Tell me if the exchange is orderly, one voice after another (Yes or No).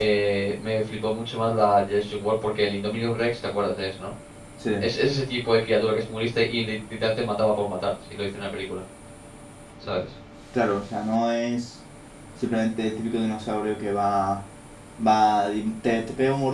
Yes